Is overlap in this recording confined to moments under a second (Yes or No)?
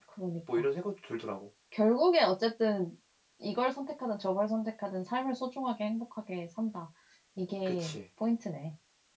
Yes